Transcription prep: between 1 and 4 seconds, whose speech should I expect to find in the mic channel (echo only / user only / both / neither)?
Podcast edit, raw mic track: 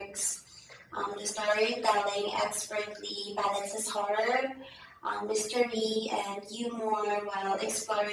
echo only